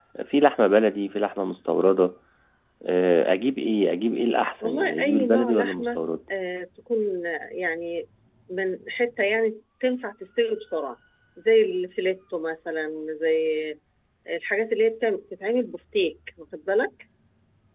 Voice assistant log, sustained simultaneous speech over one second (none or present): present